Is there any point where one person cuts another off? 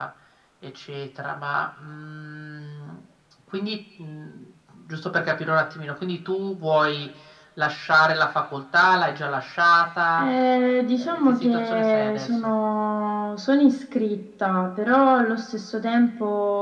Yes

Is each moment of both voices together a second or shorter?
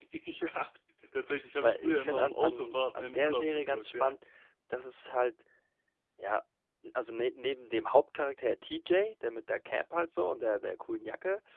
No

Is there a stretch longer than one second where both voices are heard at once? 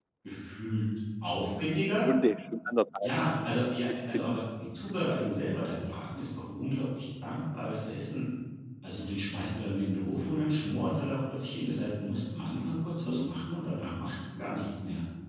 No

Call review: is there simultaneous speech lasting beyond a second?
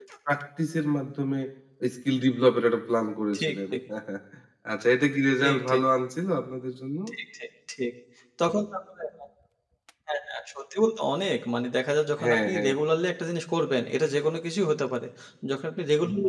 No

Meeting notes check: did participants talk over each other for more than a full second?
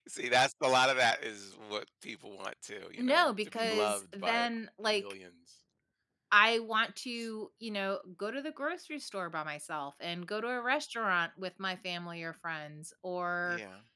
Yes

